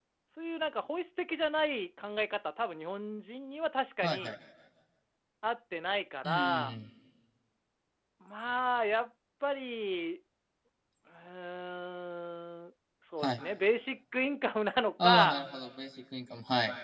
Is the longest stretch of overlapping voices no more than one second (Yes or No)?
Yes